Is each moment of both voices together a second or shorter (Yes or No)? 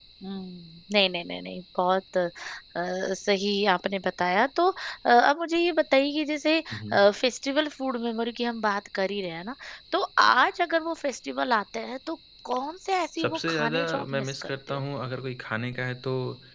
No